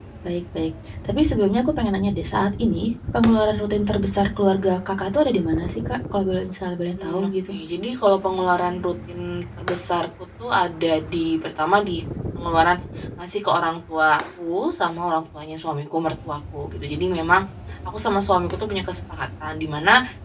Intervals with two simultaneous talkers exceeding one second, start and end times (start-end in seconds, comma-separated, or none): none